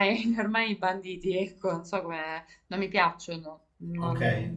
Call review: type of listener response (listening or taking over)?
taking over